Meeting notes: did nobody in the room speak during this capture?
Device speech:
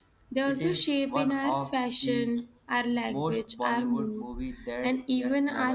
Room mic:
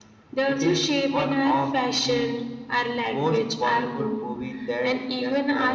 Yes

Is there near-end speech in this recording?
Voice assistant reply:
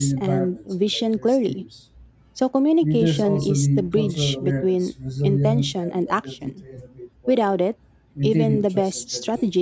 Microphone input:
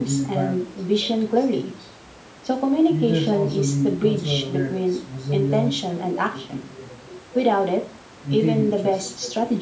No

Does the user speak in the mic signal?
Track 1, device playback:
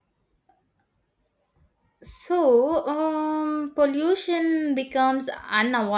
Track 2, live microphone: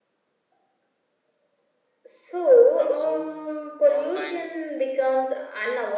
Yes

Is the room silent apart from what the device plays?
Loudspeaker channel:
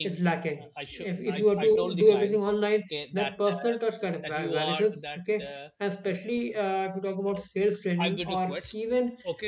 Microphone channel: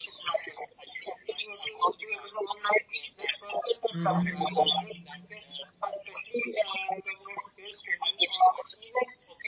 No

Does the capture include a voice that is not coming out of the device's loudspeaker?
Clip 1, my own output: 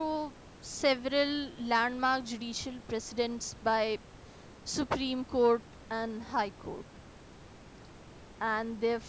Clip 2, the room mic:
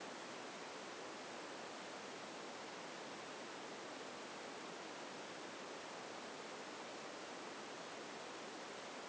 No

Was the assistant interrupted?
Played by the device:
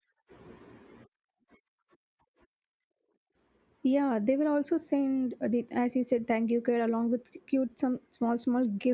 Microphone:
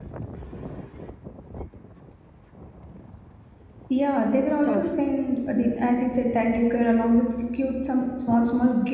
Yes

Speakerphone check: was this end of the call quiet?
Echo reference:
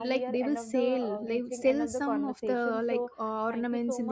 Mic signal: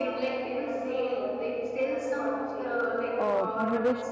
No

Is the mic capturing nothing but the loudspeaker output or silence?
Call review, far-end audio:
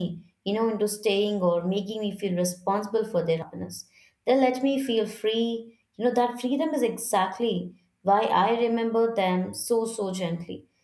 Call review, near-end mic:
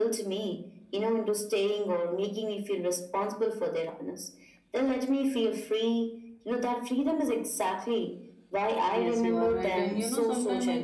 No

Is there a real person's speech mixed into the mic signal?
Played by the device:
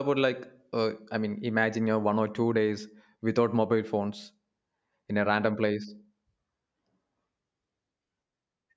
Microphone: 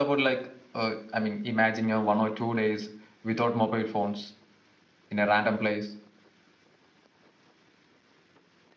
No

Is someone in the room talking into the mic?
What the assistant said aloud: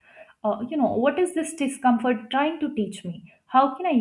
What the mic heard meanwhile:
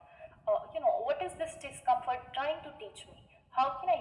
No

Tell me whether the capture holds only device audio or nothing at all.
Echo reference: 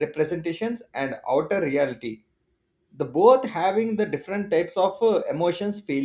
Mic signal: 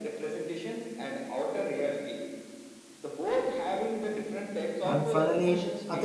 No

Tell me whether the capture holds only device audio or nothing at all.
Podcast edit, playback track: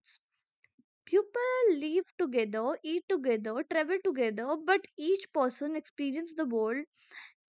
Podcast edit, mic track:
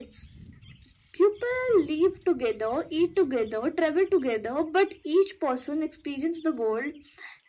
Yes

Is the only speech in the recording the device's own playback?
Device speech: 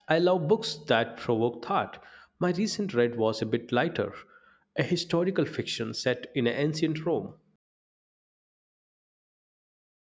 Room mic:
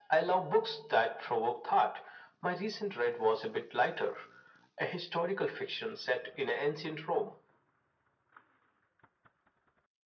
Yes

